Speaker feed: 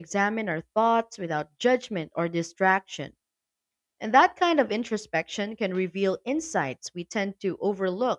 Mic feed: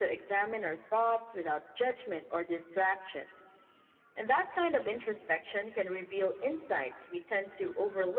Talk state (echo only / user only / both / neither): echo only